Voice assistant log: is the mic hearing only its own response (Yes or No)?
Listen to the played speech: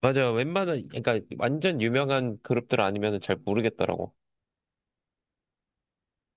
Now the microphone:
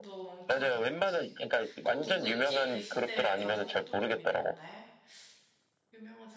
No